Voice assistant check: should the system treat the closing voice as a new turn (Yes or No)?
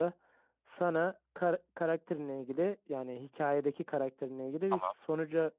No